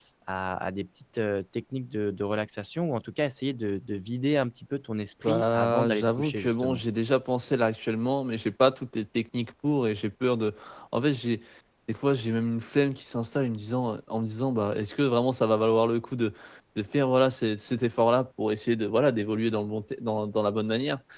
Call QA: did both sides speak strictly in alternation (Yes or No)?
No